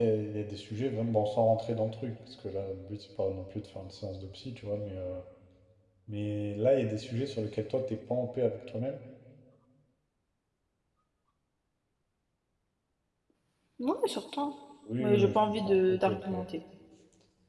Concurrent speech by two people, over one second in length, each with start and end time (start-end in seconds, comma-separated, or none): 15.0-16.3